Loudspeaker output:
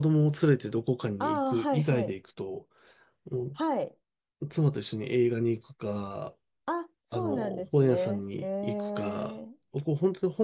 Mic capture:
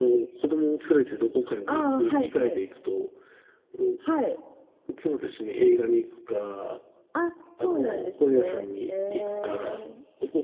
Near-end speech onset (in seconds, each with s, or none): none